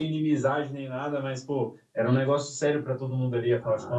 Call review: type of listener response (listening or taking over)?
taking over